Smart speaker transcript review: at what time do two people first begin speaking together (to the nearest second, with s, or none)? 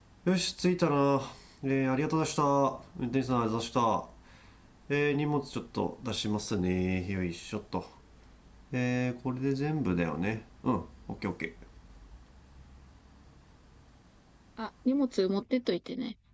none